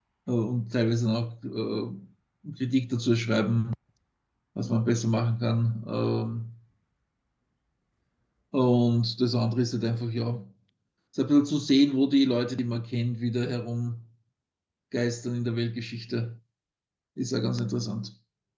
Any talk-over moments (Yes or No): No